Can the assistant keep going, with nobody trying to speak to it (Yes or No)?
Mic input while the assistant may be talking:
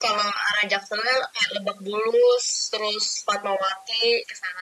Yes